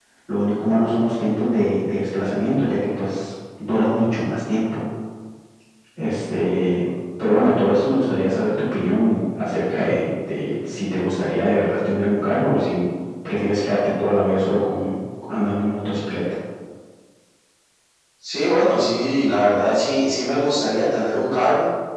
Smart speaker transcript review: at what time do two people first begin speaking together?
none

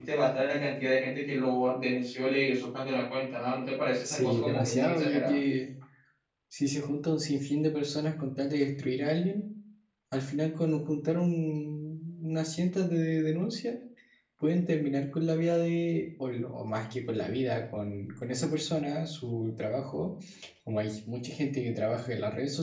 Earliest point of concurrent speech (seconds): 4.0 s

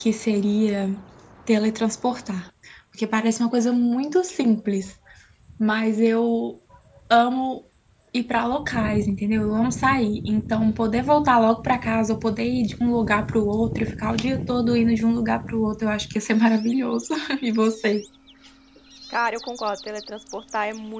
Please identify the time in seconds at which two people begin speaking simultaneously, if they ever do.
none

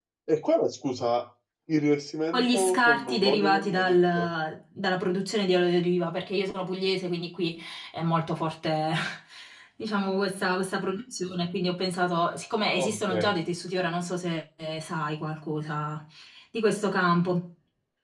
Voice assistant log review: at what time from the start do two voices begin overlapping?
2.3 s

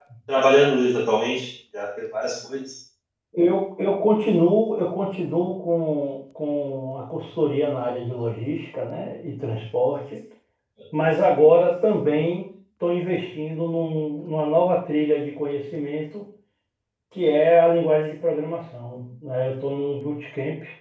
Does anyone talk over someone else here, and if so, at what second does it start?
none

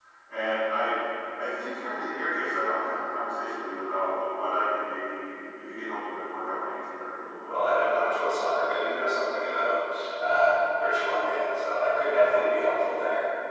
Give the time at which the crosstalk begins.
none

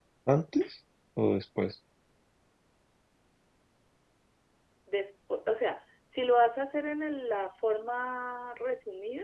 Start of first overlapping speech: none

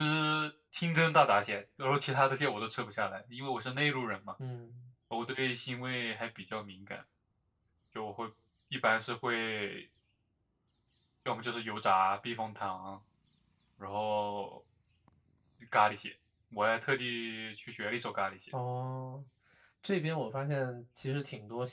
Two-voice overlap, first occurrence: none

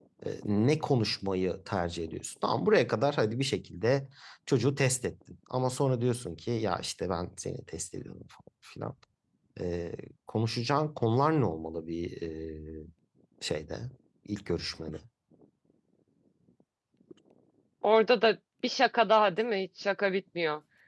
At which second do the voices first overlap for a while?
none

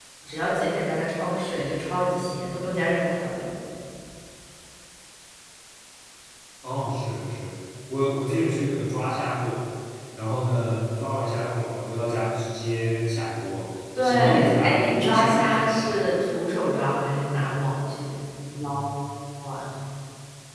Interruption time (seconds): 14.0 s

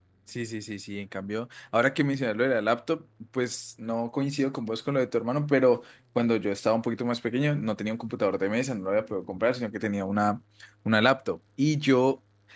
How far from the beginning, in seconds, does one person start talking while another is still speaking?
none

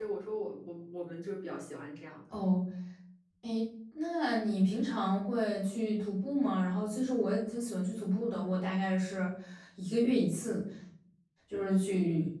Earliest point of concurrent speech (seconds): none

